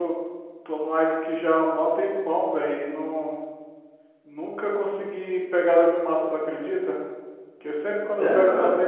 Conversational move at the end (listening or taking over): listening